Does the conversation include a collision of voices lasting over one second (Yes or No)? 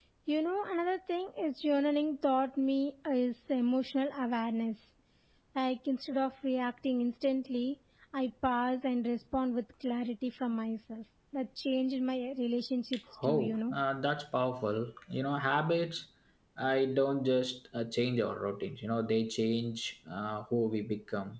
No